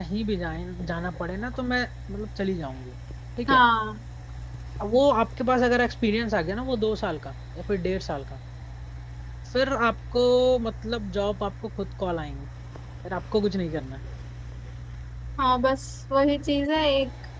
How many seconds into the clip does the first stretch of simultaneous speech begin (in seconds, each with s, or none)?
none